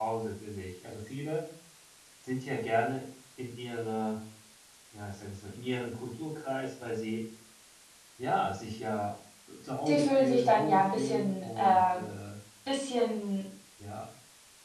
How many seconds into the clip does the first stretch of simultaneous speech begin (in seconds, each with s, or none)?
9.9 s